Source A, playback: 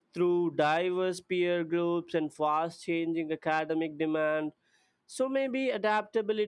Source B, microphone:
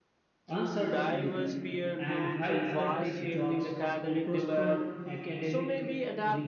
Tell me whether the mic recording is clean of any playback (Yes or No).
No